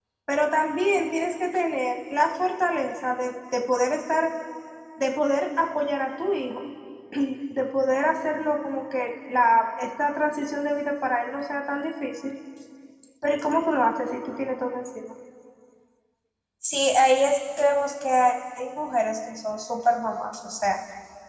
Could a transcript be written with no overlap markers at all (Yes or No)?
Yes